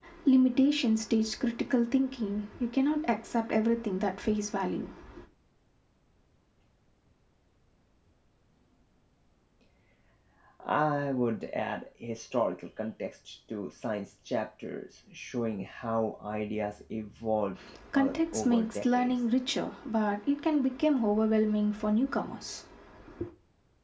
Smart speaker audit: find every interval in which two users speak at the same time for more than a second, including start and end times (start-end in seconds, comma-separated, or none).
17.9-19.2